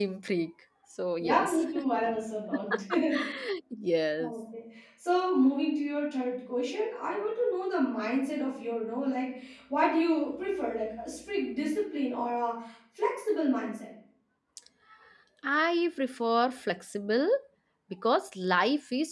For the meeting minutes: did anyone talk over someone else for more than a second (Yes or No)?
No